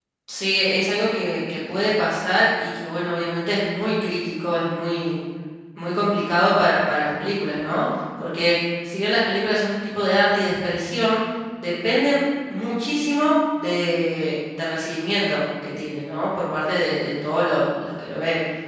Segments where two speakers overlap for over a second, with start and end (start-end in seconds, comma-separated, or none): none